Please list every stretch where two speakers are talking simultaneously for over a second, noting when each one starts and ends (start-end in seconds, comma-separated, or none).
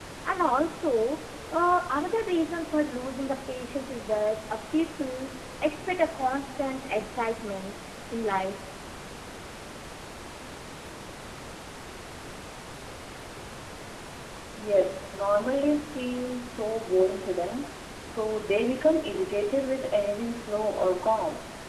none